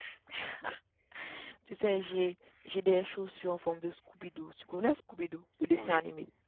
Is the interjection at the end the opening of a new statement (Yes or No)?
Yes